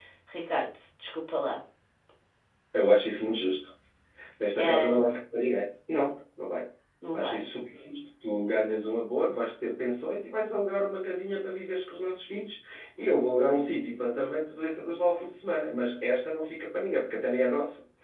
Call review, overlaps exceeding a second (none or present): none